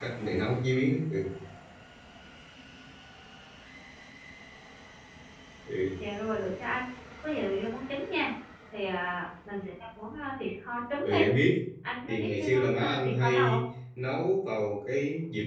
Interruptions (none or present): present